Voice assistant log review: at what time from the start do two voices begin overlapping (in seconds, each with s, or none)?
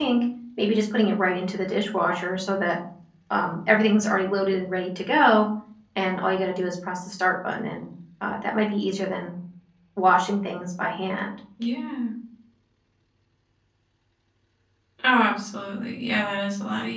none